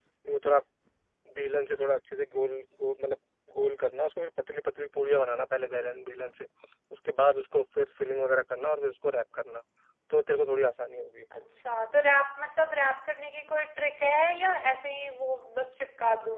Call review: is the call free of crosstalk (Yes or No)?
Yes